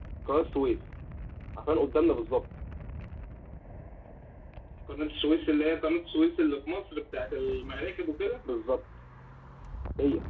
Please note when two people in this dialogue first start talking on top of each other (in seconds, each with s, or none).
none